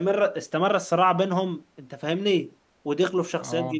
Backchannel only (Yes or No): Yes